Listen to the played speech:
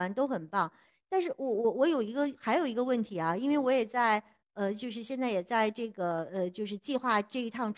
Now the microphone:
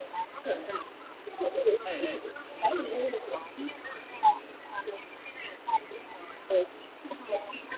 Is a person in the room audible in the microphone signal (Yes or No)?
Yes